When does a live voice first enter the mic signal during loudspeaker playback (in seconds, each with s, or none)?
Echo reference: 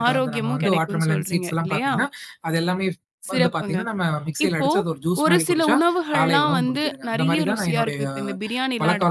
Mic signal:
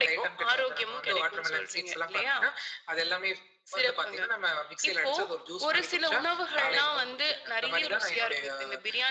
none